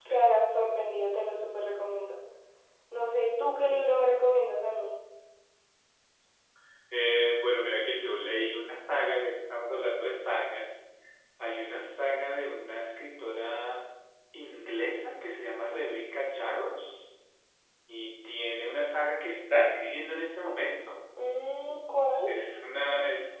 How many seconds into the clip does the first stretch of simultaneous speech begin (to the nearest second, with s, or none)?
none